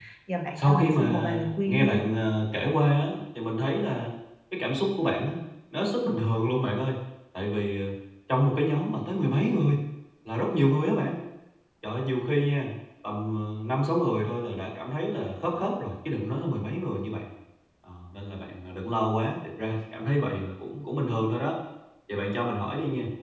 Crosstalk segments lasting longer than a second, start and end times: 0.6-2.0

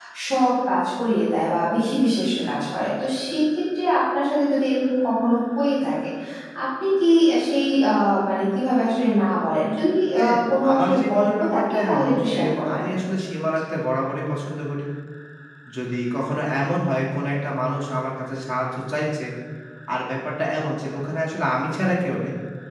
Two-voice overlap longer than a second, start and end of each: 10.1-12.8

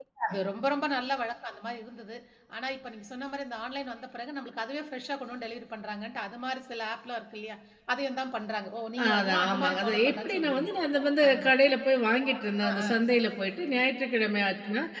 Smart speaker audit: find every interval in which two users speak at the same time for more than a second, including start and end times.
9.0-10.7

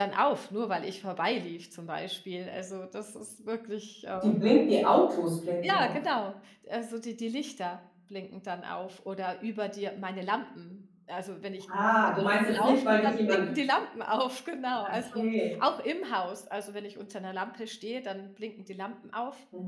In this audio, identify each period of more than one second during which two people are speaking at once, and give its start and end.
11.8-13.5

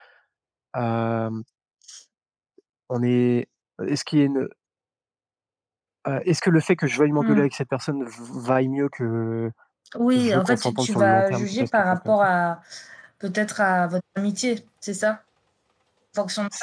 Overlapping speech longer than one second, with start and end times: 10.2-12.2

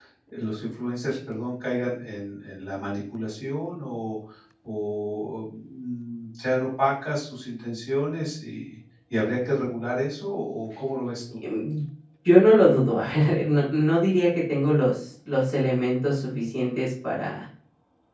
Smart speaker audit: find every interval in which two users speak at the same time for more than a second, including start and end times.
none

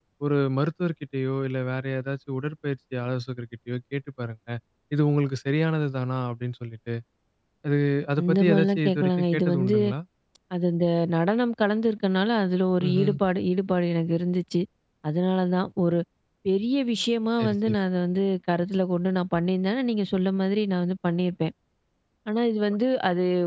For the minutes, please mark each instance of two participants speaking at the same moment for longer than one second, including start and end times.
8.2-9.8

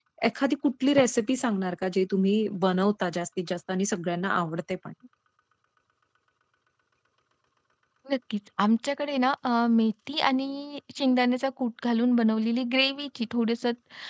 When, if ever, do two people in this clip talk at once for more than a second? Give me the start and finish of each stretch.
none

